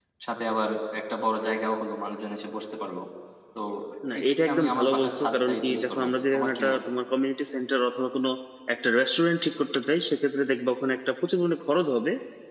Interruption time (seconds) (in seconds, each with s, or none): 4.2 s